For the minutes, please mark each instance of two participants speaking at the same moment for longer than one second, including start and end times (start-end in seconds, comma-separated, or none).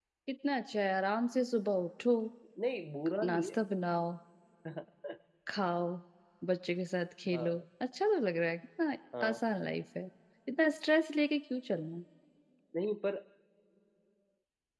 none